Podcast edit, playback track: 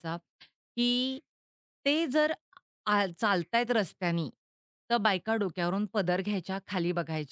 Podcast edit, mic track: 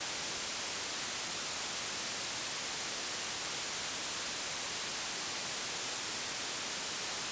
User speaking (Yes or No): No